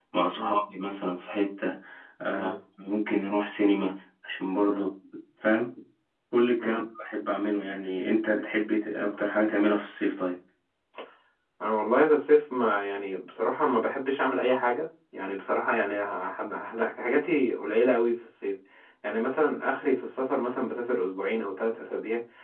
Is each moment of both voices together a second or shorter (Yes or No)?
Yes